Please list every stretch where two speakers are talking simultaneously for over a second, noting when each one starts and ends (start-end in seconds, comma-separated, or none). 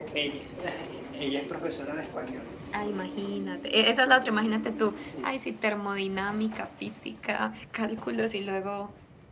none